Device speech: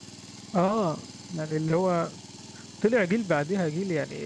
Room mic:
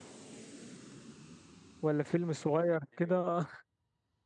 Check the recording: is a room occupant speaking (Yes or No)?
Yes